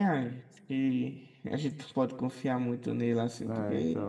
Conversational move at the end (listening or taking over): taking over